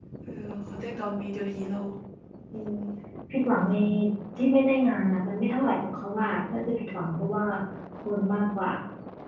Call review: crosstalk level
none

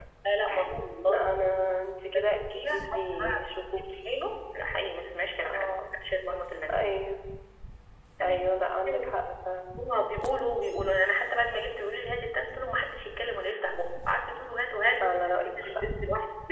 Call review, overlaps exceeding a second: present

